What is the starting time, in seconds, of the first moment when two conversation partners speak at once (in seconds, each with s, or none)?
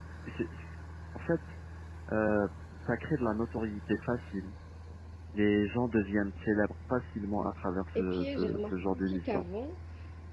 8.0 s